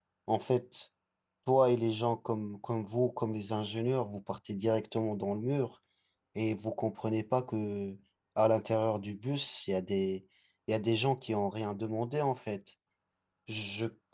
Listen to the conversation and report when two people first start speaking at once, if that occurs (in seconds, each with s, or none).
none